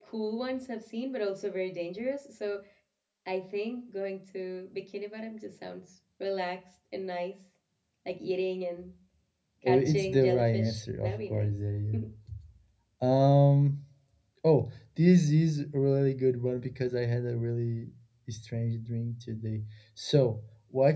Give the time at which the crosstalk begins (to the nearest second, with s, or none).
10 s